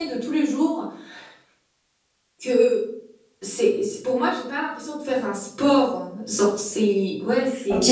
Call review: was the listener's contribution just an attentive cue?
No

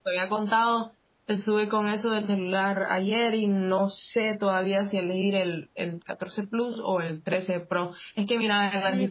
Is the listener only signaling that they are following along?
No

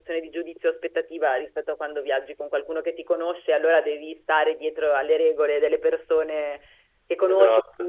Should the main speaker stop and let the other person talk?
No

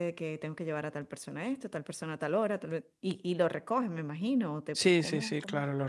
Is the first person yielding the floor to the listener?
Yes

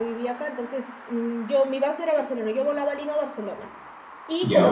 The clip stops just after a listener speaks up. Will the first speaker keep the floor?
Yes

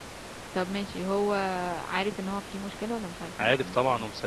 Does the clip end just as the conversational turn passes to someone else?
Yes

